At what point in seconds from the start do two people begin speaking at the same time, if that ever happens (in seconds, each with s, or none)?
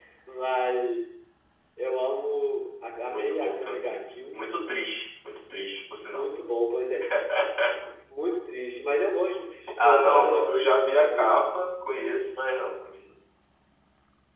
3.1 s